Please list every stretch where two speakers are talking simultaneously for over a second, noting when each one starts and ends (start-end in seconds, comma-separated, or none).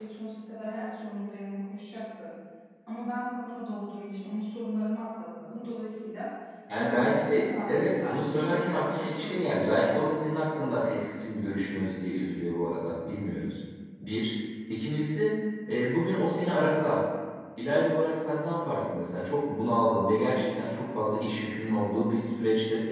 6.7-9.9